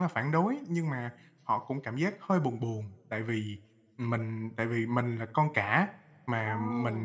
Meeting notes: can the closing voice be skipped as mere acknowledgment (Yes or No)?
Yes